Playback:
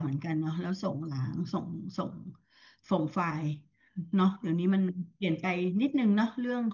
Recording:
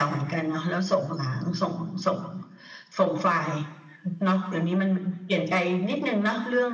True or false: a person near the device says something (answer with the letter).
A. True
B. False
B